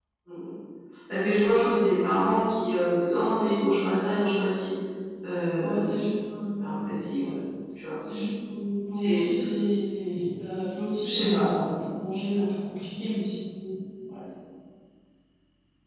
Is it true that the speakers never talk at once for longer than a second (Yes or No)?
Yes